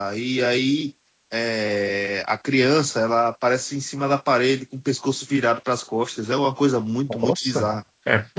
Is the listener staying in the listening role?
No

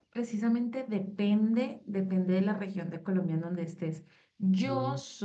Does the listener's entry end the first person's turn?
No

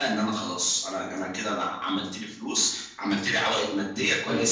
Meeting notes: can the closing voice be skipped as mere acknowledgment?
No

